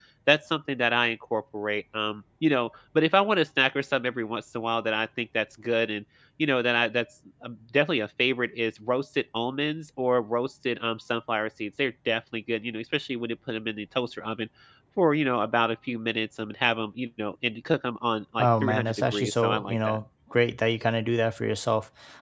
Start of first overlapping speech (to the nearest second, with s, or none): 18 s